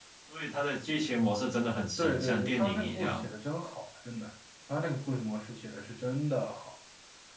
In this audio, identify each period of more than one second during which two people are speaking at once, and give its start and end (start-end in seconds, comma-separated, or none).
2.0-3.2